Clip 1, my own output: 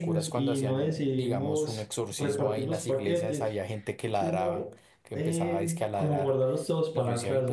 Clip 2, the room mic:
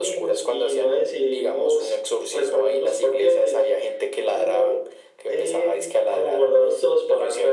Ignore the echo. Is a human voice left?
No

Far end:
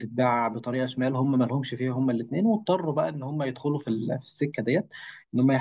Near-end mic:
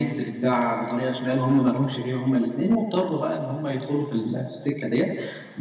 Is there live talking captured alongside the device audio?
No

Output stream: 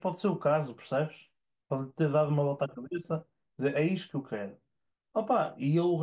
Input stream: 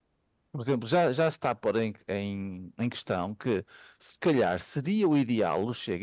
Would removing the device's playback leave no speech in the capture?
No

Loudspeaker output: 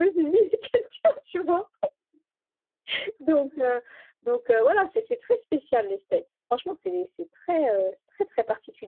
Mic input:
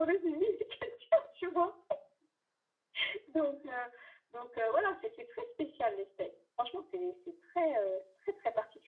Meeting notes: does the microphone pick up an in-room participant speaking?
No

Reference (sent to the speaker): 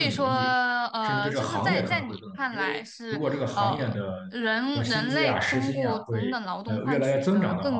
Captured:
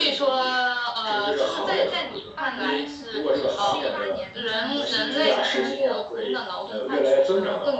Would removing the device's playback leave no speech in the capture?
No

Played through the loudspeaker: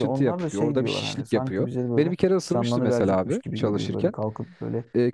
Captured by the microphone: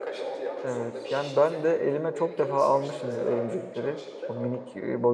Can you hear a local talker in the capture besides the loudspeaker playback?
Yes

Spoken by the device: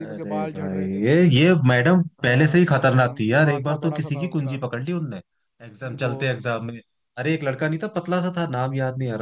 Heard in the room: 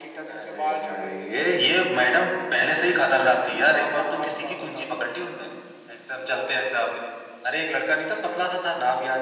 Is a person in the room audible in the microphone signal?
No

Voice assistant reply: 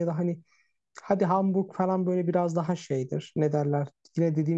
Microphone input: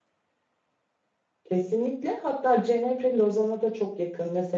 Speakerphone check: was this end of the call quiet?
No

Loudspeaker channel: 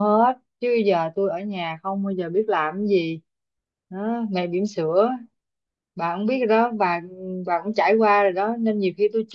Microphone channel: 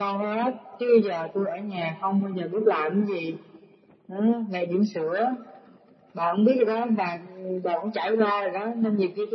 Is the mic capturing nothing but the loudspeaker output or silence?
Yes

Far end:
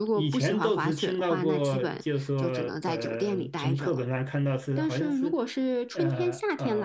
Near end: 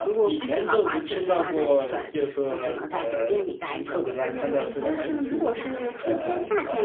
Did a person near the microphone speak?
Yes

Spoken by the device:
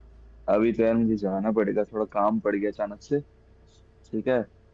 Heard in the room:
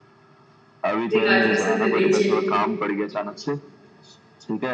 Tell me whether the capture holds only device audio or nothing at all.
No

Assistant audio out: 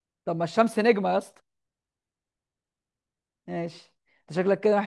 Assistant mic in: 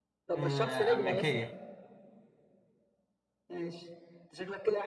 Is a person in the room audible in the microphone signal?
Yes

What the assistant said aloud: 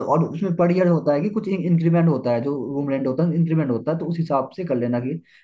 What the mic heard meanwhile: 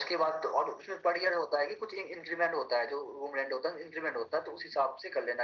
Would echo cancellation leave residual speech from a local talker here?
No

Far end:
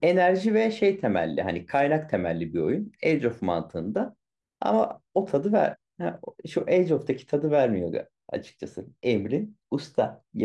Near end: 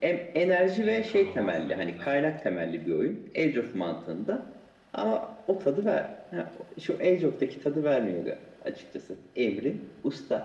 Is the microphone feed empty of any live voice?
No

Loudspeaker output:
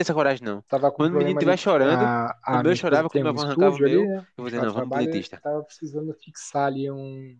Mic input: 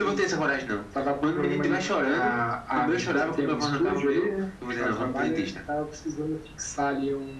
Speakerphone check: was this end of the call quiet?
Yes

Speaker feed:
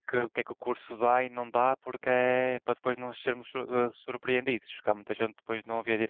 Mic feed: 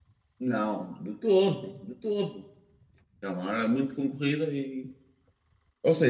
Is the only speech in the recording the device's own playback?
No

